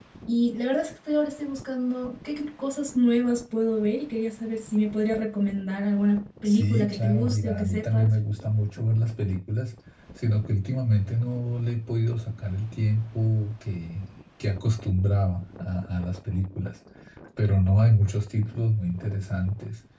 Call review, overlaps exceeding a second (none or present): present